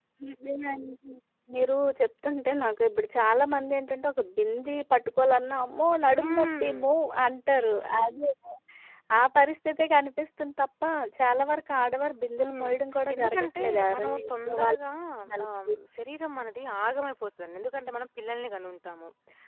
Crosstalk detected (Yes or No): Yes